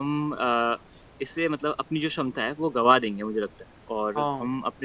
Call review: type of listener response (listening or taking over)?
listening